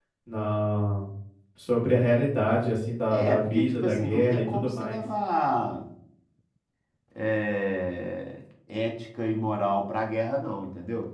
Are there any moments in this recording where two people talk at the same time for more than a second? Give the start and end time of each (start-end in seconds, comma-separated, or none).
3.1-5.0